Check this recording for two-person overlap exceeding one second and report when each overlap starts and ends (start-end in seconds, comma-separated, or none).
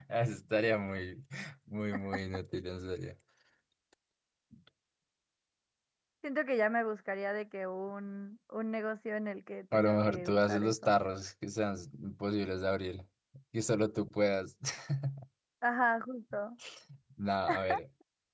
9.7-11.0